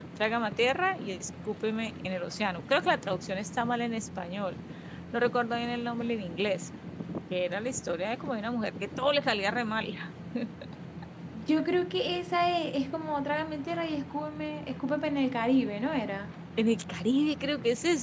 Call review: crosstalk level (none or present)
none